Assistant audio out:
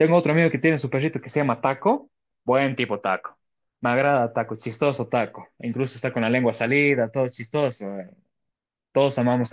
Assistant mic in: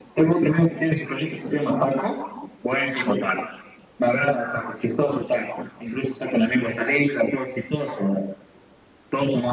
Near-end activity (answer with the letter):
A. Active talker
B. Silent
B